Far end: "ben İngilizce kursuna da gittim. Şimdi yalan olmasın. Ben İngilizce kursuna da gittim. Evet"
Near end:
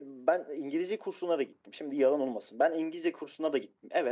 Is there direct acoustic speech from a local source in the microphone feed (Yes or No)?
No